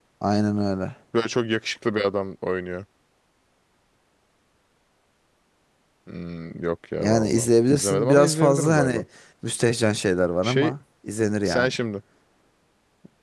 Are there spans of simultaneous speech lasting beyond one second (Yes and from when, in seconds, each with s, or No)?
Yes, from 7.0 s